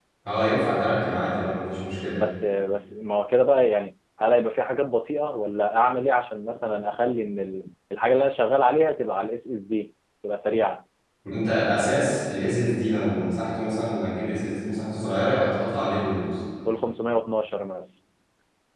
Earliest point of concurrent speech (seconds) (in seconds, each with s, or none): none